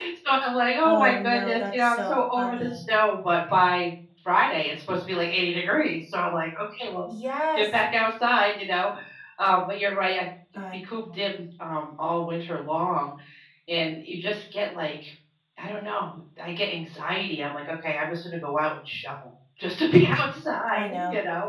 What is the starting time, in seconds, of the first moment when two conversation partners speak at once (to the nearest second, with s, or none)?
1 s